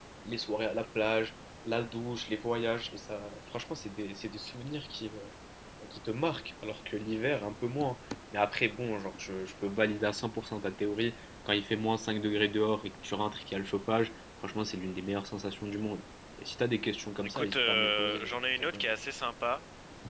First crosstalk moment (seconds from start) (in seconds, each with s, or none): 17.2 s